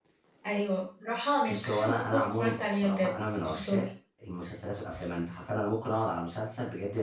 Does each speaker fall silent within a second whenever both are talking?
No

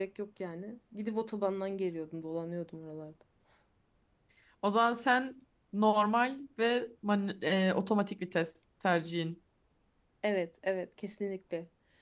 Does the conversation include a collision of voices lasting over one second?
No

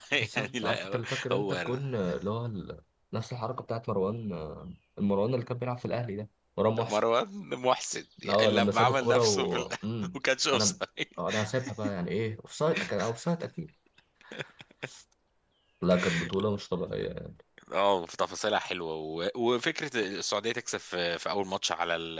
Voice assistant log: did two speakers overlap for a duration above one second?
Yes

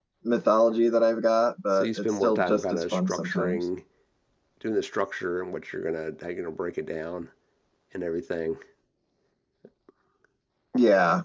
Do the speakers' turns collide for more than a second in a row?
Yes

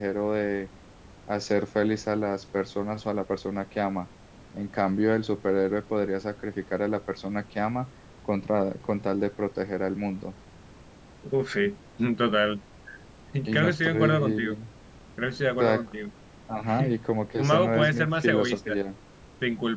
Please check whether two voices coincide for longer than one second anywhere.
Yes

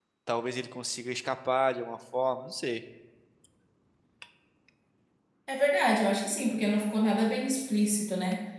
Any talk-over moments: No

